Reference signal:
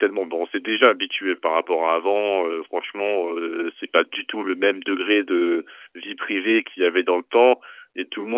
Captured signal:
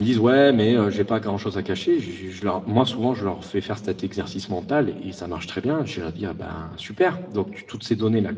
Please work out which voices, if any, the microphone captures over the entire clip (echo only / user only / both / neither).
user only